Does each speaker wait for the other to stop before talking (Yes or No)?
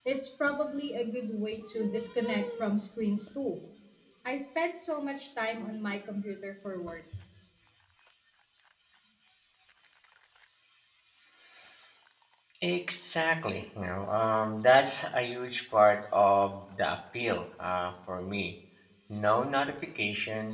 Yes